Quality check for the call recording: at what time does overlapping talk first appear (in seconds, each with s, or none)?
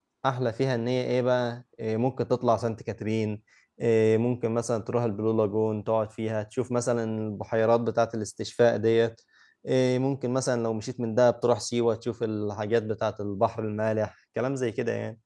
none